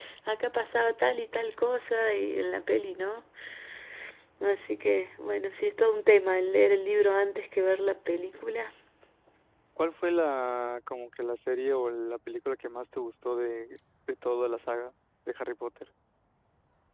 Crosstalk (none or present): none